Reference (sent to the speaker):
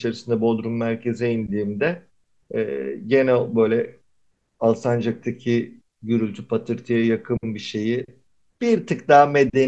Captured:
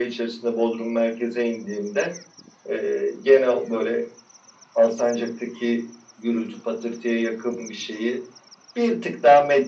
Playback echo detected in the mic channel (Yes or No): Yes